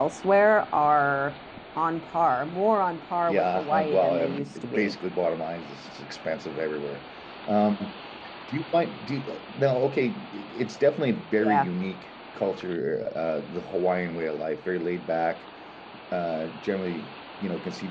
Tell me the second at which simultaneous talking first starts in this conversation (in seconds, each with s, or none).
3.3 s